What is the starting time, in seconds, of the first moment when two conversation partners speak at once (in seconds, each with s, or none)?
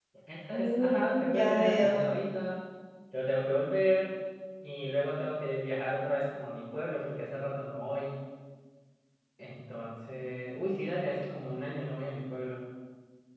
0.5 s